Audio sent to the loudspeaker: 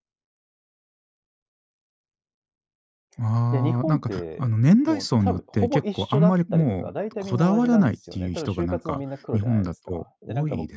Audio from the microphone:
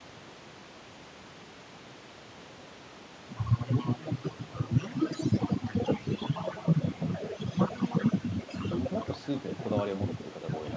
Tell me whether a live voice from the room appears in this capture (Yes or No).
Yes